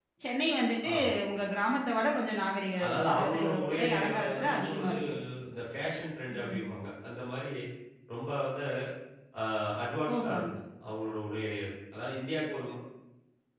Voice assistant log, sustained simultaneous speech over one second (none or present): present